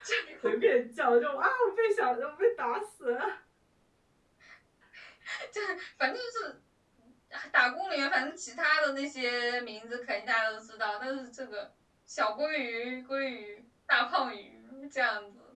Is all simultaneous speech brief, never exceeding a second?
Yes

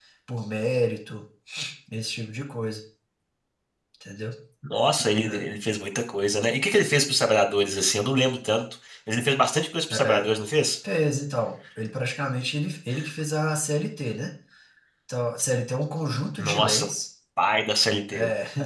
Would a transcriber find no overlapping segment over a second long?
Yes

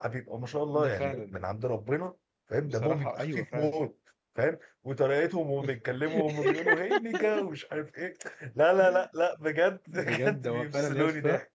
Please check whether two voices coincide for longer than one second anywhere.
Yes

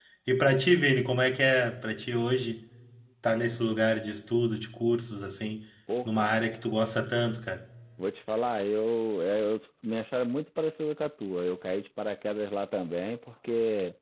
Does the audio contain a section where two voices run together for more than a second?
No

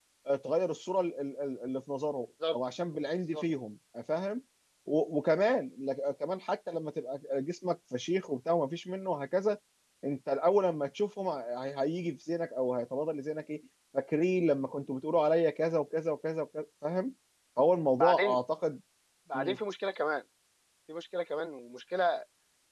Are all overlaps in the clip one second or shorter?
Yes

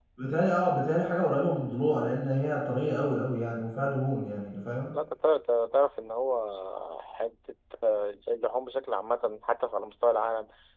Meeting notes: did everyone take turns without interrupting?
Yes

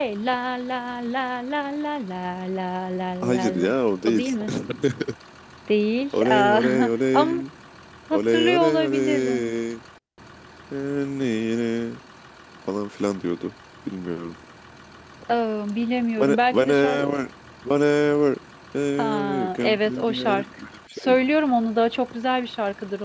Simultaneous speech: Yes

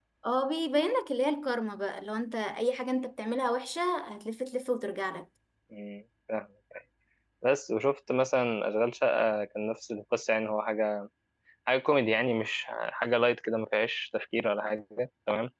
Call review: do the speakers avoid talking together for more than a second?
Yes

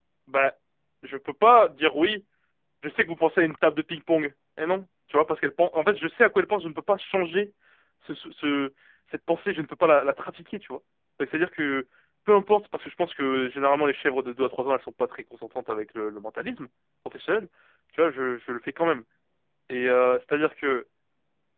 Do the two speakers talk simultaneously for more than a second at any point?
No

